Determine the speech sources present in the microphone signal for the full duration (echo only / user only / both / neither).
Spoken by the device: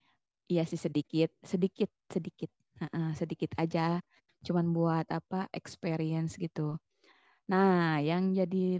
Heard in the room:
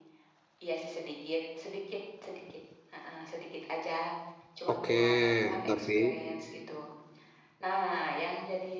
both